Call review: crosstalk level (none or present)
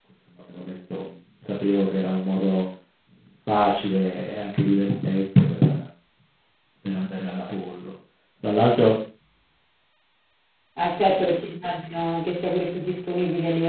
none